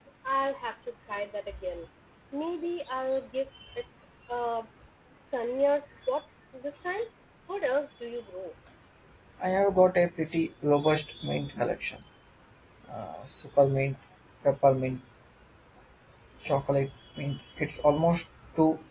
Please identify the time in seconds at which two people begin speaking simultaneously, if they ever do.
none

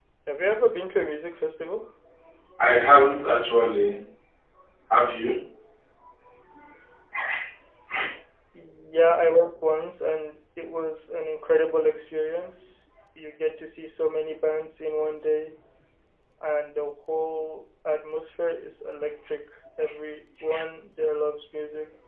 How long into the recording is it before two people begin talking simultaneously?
none

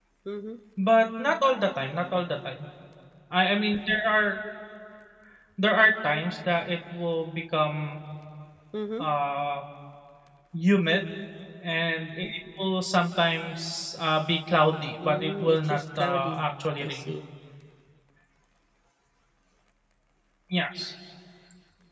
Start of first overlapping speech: 15 s

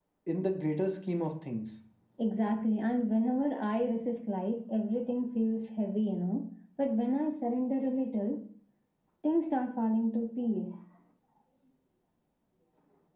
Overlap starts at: none

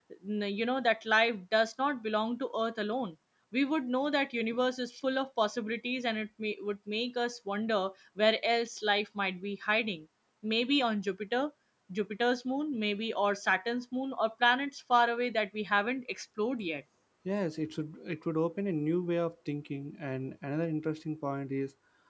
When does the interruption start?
none

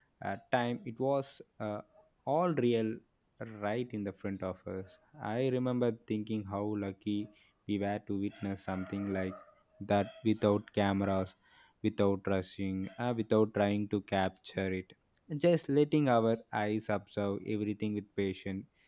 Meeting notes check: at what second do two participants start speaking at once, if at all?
none

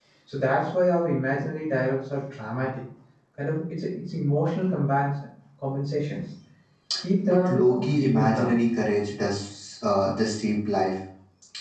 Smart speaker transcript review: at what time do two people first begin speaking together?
7 s

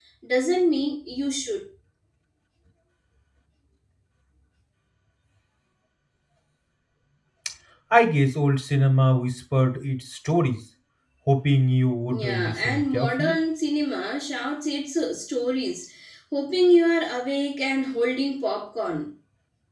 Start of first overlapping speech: 12 s

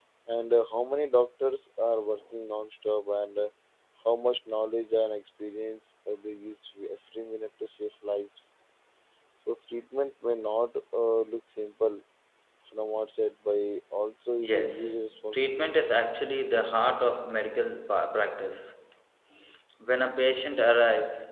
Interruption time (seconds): 14 s

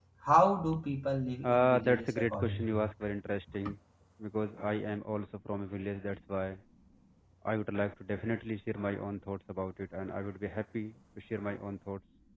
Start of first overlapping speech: 1 s

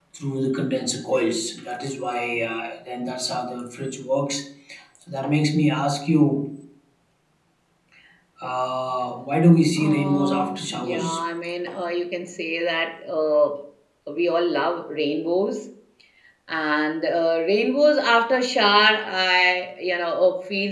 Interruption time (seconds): 10 s

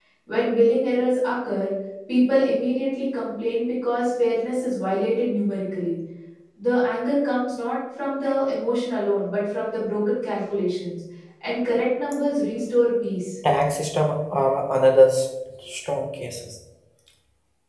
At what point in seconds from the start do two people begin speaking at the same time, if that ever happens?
none

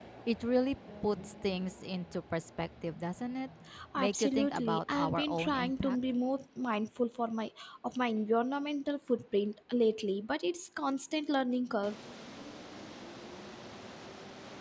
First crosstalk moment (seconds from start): 4 s

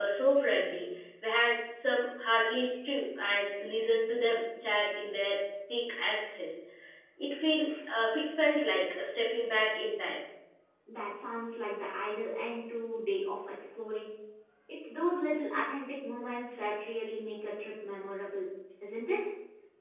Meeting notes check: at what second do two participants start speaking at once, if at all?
none

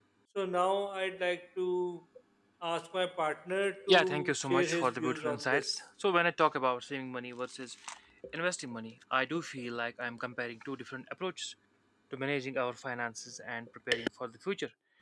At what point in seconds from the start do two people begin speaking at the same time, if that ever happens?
4 s

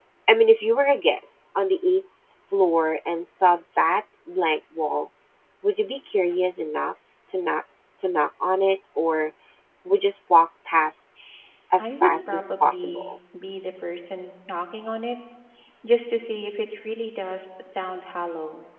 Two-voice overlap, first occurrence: 12 s

